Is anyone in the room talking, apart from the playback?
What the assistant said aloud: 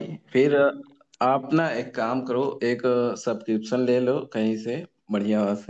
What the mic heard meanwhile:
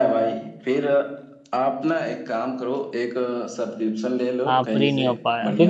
Yes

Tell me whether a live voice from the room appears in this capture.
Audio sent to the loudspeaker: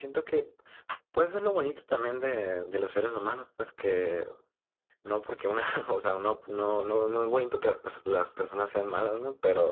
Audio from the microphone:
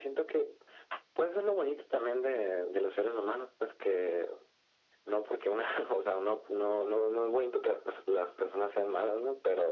No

